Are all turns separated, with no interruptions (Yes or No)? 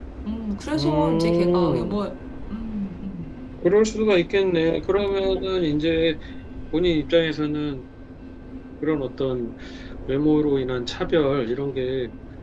No